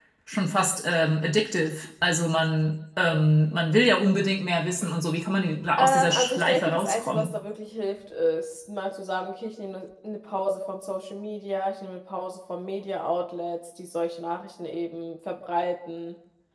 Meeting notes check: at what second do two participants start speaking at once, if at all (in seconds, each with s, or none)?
5.8 s